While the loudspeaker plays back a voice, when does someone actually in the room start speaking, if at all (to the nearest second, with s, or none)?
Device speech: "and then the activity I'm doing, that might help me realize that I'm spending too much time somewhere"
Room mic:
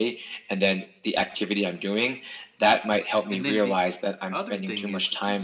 3 s